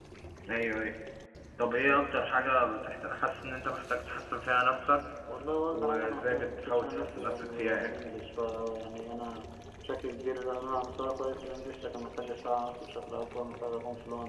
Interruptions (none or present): present